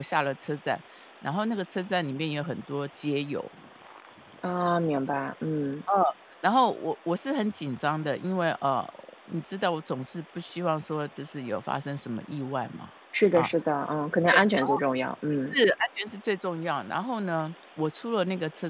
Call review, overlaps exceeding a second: none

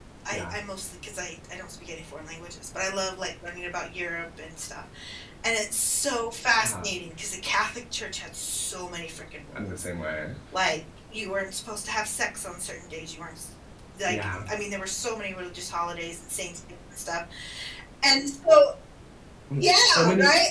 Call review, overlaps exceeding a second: none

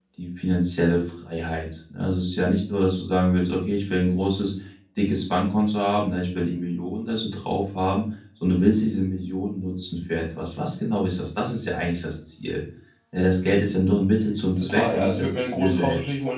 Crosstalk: present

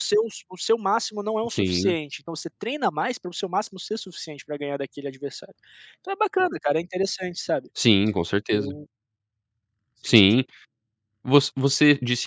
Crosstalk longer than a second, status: none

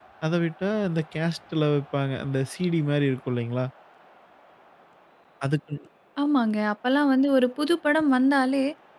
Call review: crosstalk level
none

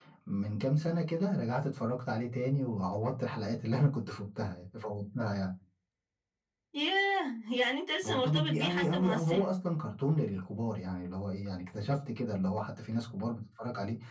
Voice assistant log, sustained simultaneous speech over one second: present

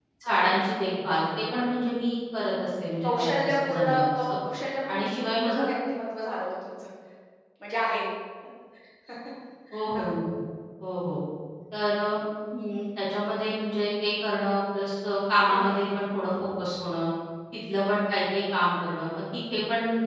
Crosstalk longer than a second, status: present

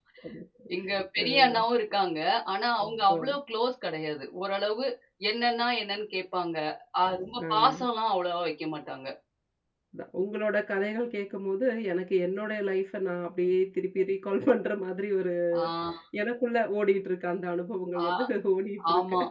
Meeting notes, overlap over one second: none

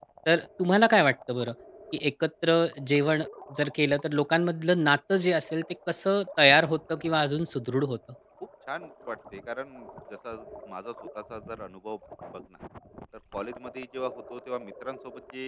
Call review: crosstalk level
none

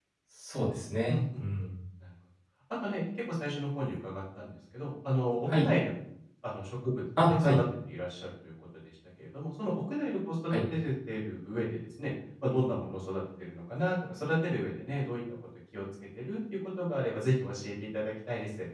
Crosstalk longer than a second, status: none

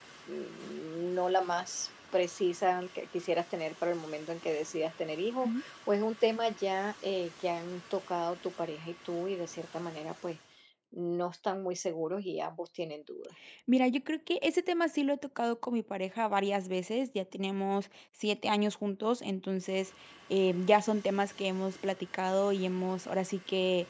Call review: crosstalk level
none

